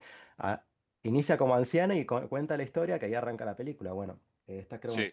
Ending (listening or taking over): listening